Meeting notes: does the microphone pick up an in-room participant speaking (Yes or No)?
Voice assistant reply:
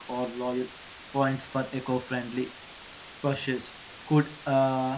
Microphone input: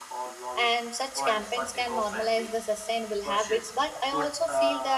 Yes